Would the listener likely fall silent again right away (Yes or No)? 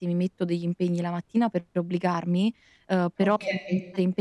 Yes